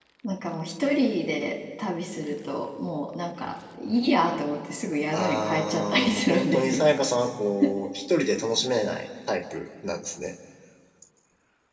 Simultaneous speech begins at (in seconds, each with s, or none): 5.1 s